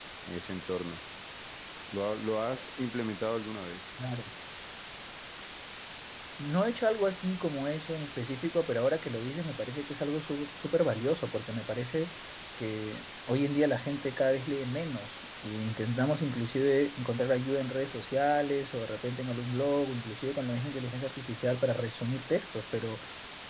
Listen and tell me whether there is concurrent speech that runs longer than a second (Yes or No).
No